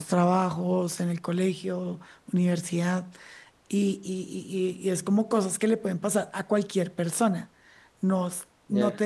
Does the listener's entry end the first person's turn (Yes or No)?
No